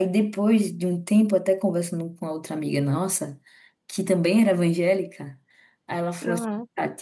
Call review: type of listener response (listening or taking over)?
listening